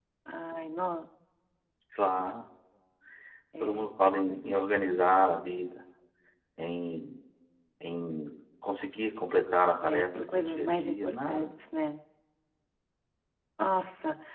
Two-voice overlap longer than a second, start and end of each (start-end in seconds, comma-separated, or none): 9.8-11.5